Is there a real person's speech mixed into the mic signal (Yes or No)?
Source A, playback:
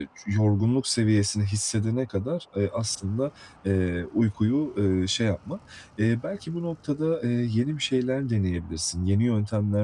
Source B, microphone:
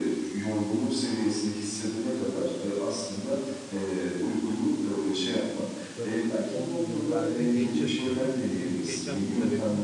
Yes